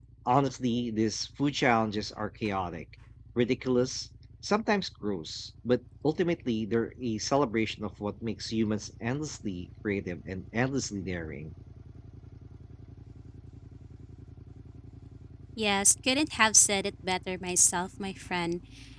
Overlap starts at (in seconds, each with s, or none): none